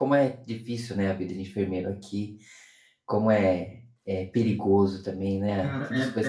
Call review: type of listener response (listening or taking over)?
taking over